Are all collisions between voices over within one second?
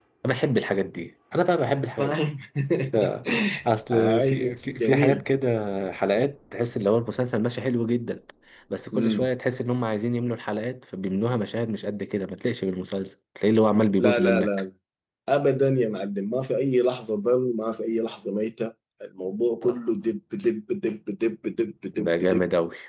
No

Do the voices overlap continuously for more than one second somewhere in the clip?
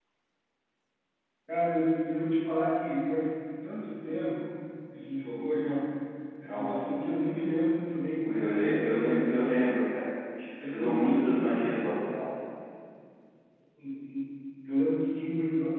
Yes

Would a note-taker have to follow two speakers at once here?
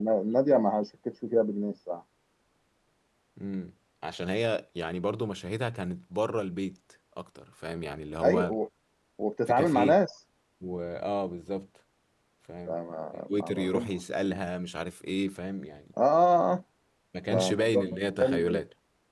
Yes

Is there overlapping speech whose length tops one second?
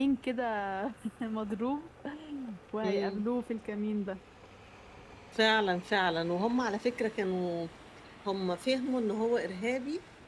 No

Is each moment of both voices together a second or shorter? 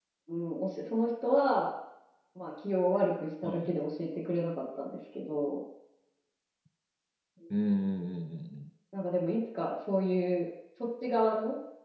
Yes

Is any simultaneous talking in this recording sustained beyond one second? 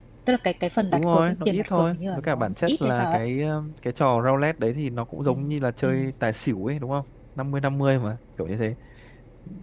Yes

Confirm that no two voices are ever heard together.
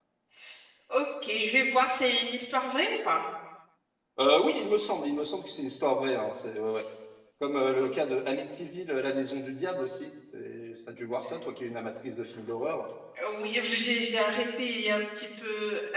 Yes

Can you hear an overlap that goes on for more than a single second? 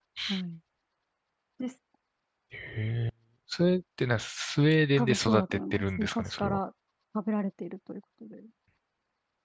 Yes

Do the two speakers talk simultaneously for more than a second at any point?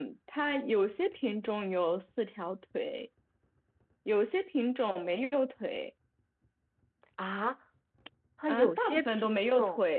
Yes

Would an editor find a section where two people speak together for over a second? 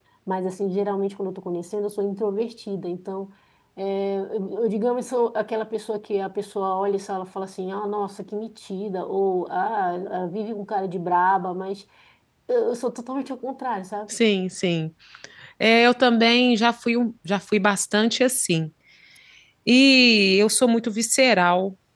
No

